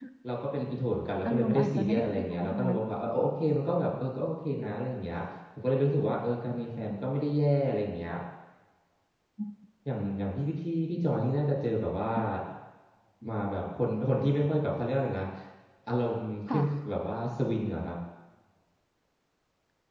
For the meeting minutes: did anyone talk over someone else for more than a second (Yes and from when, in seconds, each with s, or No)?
Yes, from 1.2 s